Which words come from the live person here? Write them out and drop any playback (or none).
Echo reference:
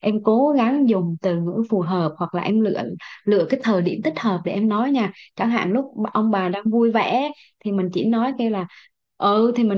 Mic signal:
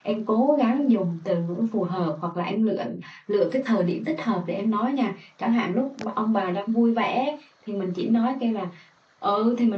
none